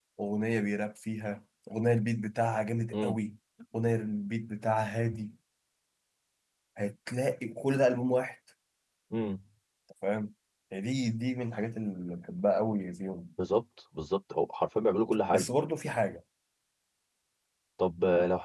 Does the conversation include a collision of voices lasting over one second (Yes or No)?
No